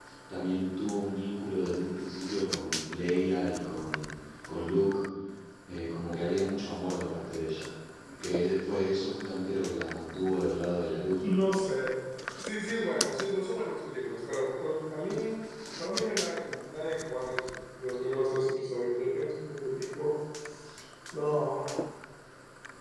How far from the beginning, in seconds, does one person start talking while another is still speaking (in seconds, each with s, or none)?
none